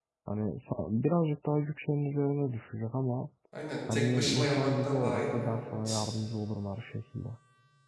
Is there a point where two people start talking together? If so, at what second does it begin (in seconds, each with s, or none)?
3.9 s